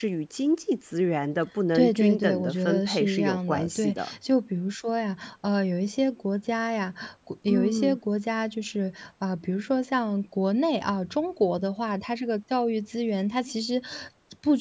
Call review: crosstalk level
present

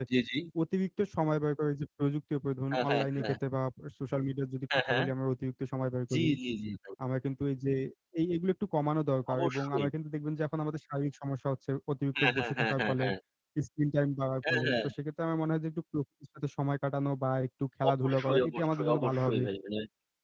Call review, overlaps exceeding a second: present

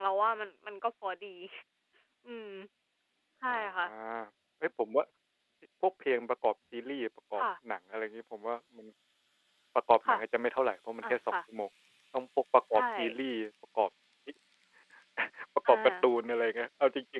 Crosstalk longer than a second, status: none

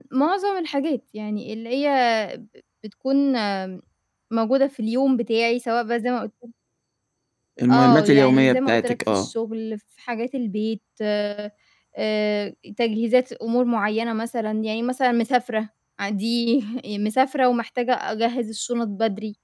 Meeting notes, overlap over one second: present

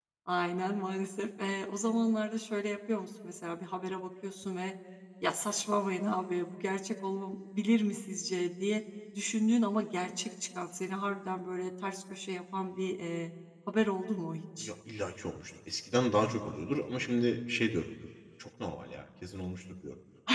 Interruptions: none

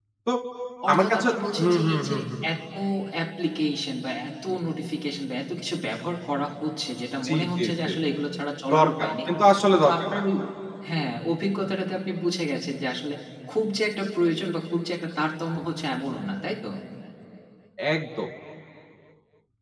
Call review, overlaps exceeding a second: present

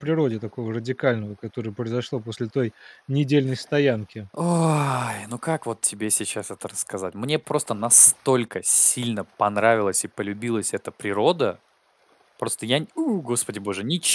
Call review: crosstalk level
none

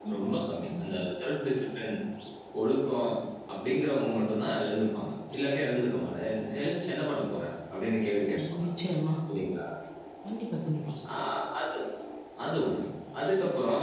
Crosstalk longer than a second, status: none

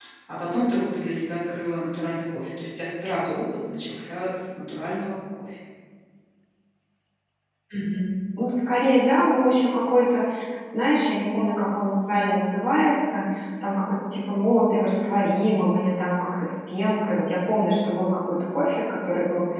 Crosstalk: none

